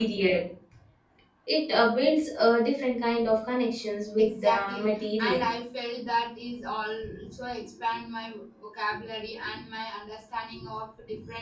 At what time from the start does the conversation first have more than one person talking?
4.2 s

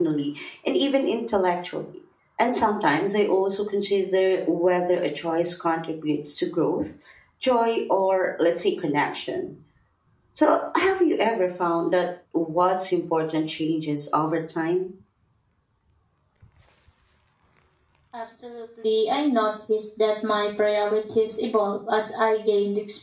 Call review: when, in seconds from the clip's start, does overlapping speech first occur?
none

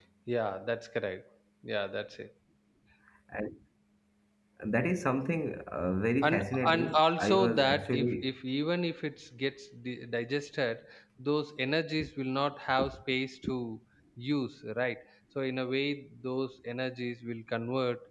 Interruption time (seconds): 6.2 s

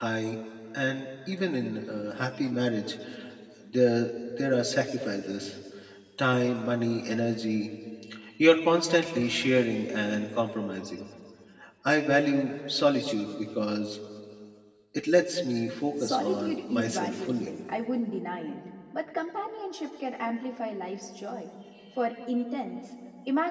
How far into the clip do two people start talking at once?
16.0 s

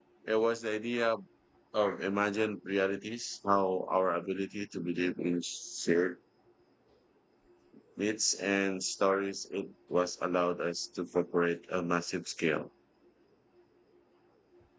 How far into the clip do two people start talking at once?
none

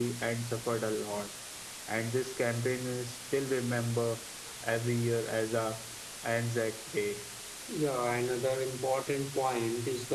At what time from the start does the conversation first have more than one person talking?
none

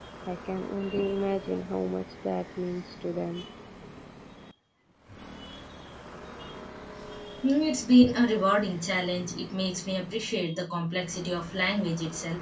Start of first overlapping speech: none

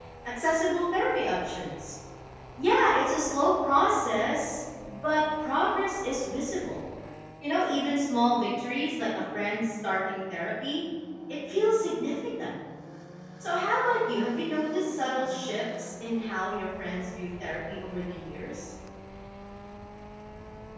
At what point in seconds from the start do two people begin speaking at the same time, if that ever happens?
none

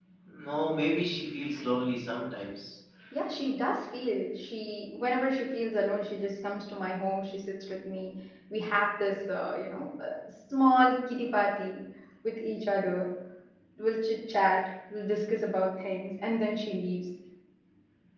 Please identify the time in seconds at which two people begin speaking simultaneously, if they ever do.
none

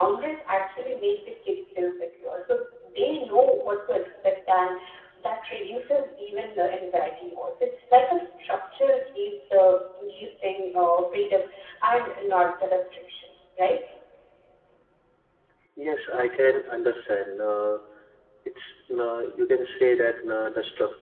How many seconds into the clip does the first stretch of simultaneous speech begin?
none

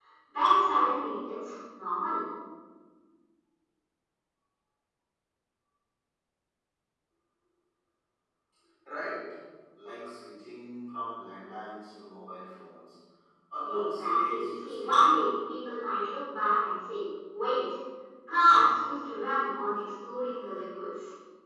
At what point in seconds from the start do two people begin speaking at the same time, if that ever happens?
13.7 s

